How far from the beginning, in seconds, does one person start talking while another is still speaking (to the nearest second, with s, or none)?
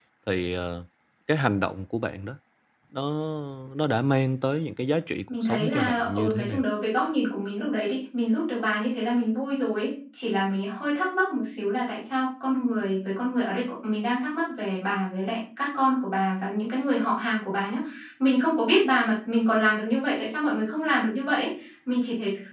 5 s